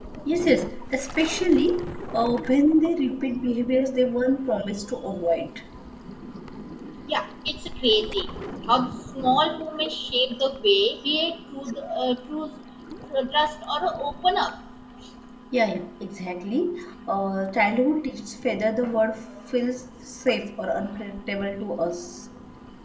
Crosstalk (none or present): none